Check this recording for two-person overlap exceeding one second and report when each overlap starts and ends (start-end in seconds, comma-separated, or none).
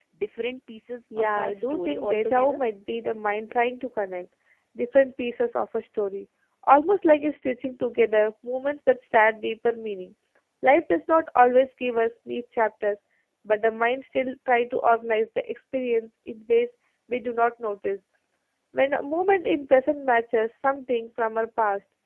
1.2-2.6